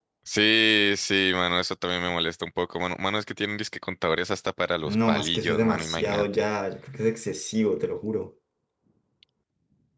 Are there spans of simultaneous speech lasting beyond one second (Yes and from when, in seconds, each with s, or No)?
Yes, from 4.8 s